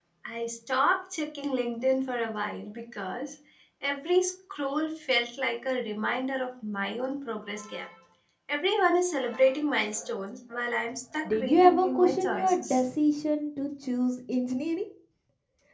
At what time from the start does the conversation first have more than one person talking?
11 s

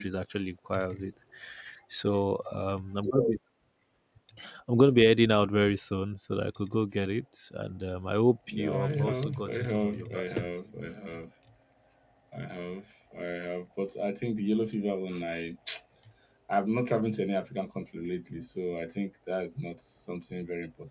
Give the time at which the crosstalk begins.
8 s

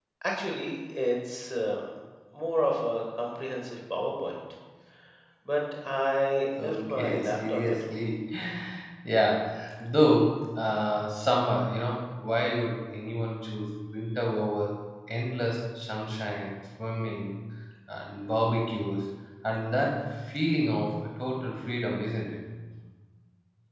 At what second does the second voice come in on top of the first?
7 s

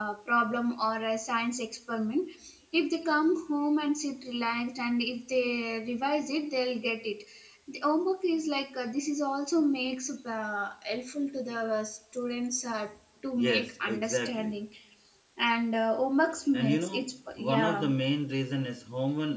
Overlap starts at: 13 s

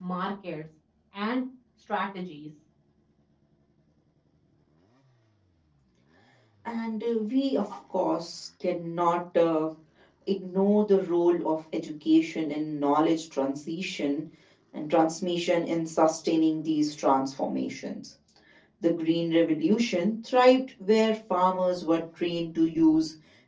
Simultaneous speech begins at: none

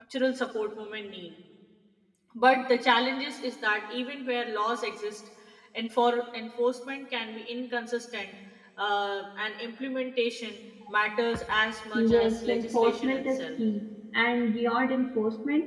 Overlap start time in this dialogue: 12 s

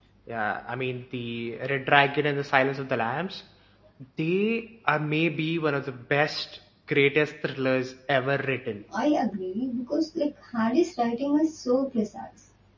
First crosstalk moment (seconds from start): none

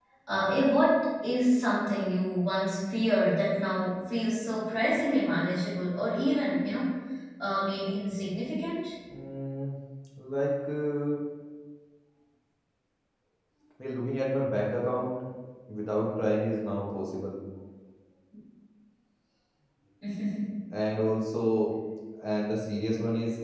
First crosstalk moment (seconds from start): none

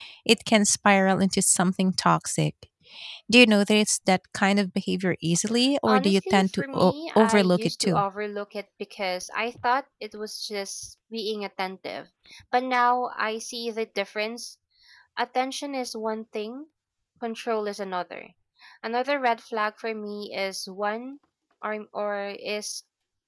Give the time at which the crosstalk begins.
6 s

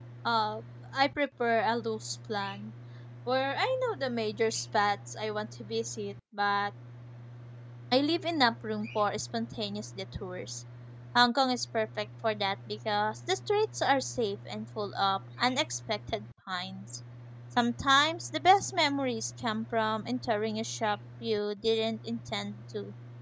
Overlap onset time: none

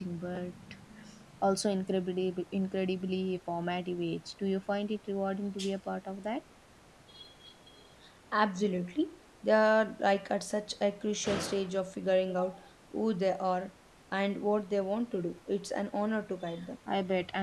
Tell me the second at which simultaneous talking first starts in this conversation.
none

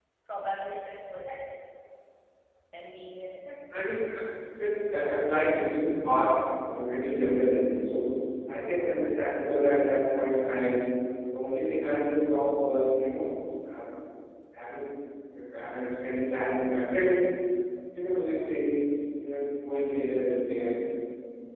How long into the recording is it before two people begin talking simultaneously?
none

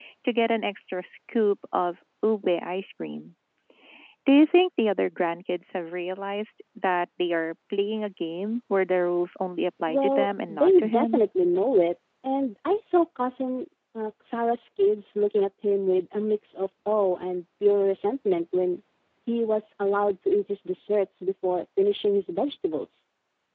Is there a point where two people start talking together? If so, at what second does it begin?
10 s

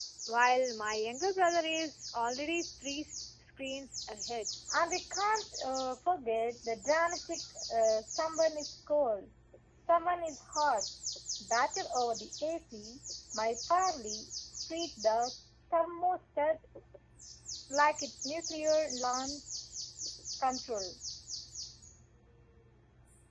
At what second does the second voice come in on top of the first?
none

